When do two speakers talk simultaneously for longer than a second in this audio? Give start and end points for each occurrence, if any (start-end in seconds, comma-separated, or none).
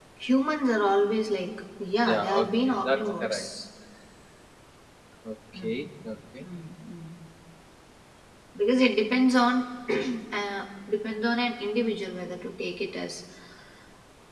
2.1-3.4